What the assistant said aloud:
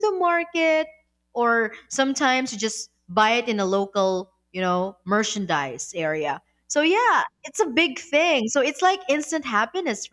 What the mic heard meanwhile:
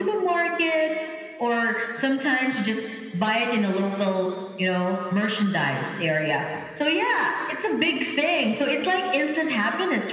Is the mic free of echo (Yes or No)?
No